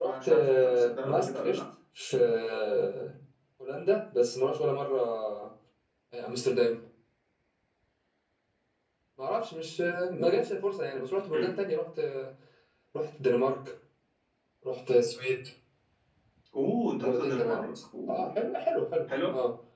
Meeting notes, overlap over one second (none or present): present